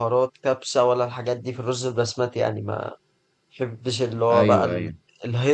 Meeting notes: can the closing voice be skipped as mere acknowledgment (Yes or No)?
Yes